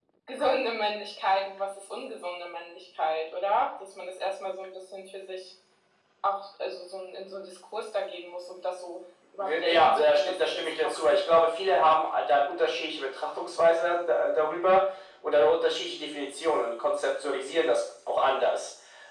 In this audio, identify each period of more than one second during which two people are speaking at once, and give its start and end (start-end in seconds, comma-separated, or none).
9.6-11.2